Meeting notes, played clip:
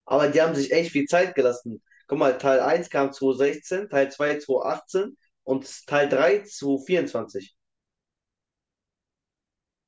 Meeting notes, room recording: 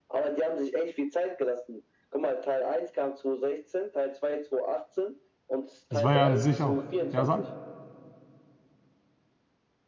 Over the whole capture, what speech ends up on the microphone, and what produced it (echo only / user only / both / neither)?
both